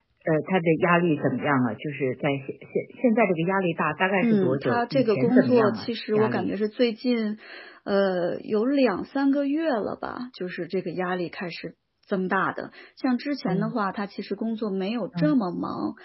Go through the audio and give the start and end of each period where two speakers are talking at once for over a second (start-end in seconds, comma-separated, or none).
4.2-6.5